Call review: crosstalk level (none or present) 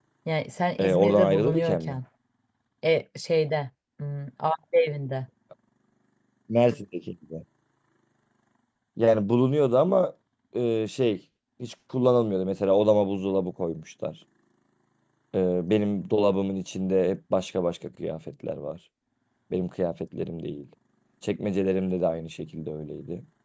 present